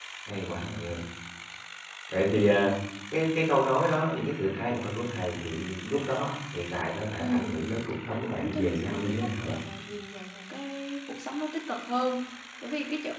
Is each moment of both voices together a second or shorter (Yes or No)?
No